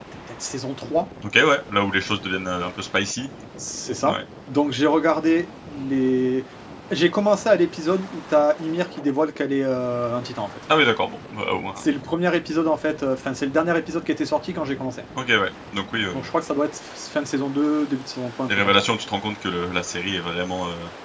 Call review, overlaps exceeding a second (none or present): none